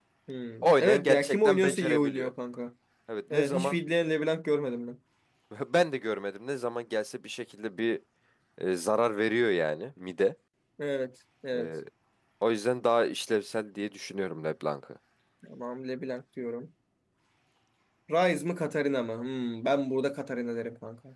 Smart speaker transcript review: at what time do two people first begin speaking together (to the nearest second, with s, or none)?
1 s